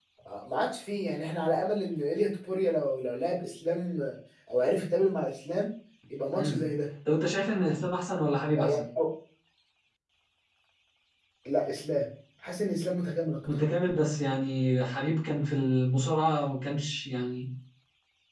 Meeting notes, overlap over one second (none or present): none